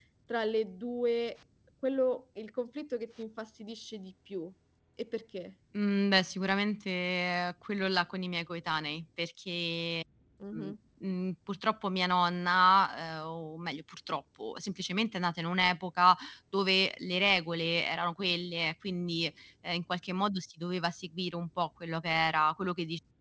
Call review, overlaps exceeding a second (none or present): none